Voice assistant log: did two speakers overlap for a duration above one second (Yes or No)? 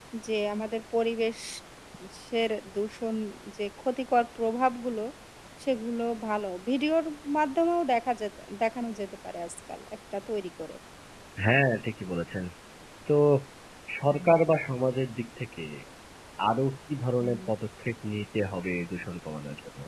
No